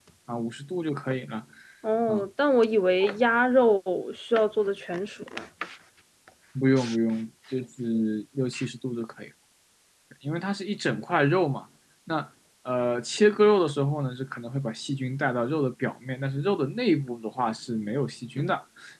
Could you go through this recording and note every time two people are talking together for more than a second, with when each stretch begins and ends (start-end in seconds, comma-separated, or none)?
none